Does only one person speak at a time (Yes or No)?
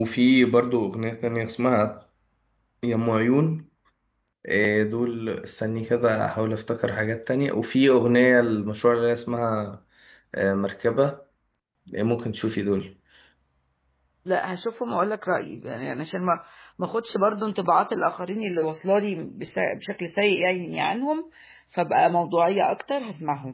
Yes